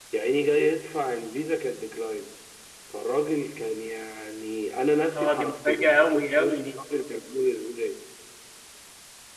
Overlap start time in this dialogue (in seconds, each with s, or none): 5.2 s